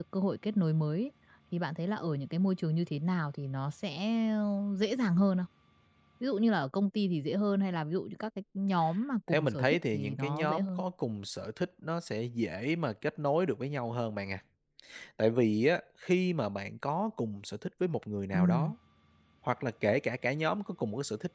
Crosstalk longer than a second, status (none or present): present